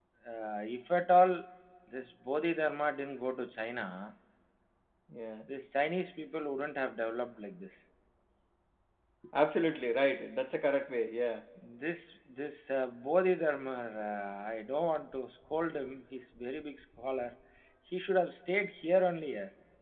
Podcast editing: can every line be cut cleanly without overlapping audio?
Yes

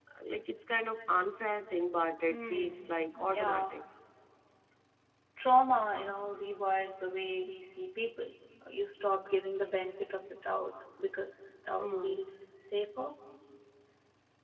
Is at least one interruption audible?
Yes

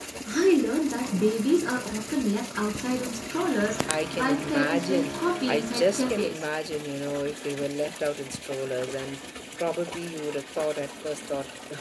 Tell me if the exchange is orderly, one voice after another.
No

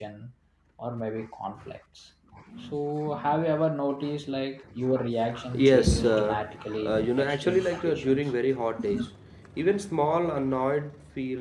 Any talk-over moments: Yes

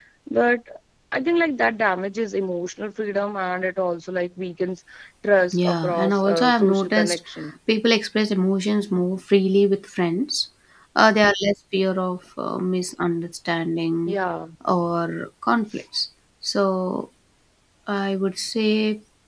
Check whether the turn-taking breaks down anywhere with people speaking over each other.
Yes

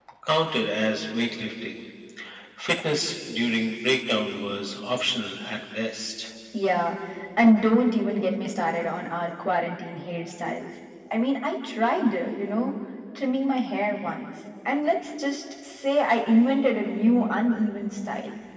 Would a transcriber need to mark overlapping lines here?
No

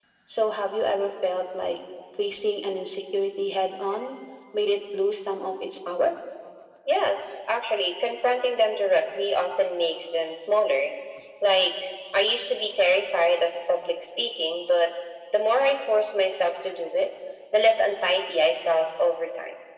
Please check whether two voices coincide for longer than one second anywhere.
No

